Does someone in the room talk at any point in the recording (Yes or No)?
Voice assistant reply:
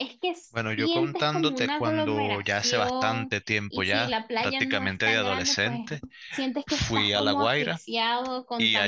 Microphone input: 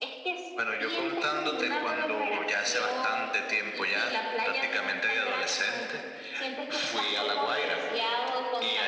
No